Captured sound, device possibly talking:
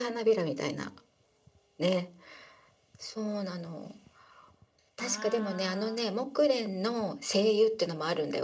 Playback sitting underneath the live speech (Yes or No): No